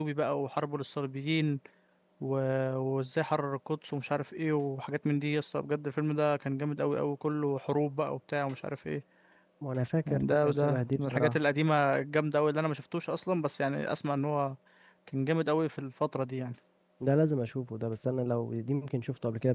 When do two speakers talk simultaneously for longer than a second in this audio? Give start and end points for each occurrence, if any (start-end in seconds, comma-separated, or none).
10.1-11.4